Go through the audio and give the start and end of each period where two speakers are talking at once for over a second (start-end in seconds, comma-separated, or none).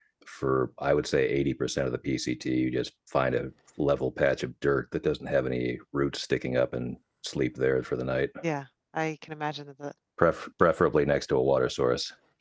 none